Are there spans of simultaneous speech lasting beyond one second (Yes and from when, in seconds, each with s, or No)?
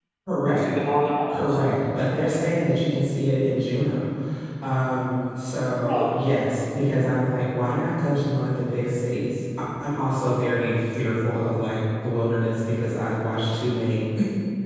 No